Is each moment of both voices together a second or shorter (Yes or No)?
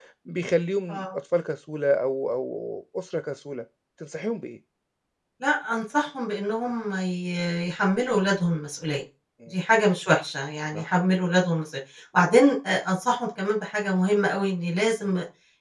Yes